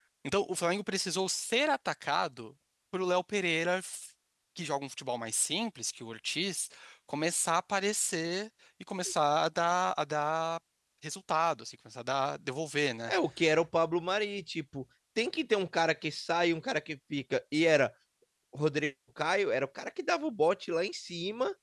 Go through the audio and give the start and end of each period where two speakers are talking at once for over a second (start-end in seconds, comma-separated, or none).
none